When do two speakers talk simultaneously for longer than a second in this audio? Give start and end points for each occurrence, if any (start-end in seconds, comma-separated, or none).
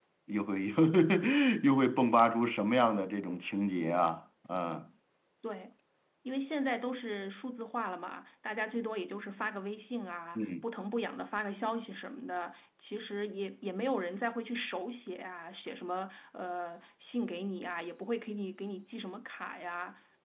none